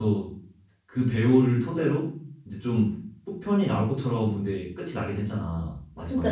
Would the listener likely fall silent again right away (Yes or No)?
No